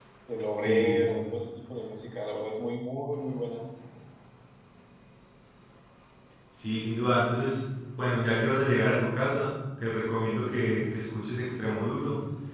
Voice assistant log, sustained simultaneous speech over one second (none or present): none